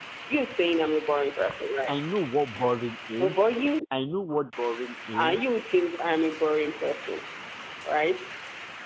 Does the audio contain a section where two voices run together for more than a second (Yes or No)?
No